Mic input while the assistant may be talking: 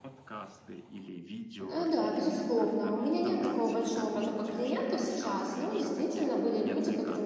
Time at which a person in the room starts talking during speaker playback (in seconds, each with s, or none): 1.6 s